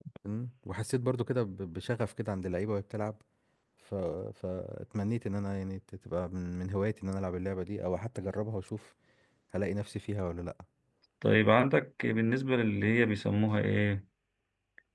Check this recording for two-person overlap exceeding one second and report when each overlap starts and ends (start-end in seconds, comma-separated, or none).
none